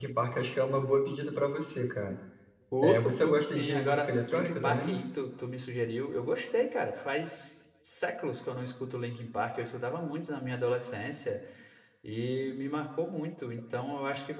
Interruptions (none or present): present